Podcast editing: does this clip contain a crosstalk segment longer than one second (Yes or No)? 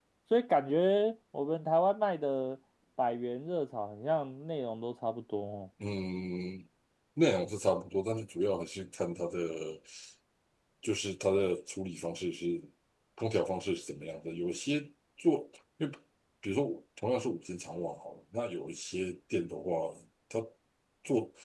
No